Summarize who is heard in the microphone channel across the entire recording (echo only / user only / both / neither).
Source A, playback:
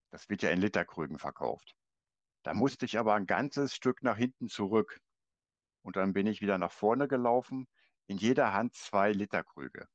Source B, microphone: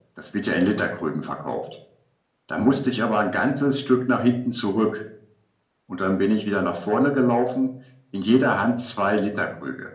echo only